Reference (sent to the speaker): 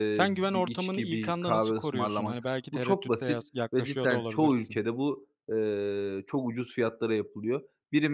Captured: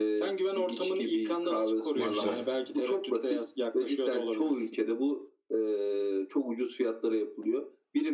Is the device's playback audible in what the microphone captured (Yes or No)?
Yes